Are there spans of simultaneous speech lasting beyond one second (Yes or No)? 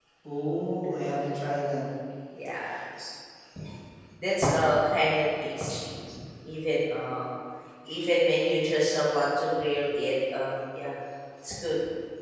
No